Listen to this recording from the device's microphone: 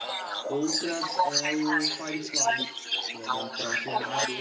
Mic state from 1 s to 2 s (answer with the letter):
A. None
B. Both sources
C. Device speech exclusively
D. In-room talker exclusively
B